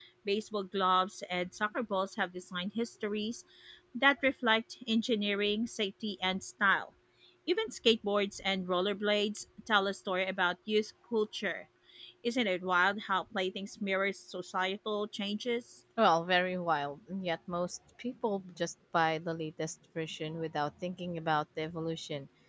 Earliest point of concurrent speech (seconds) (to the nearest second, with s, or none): none